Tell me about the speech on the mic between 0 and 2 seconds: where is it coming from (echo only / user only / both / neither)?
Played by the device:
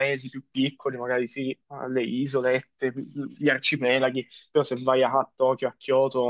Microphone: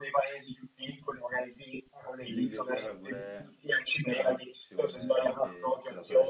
echo only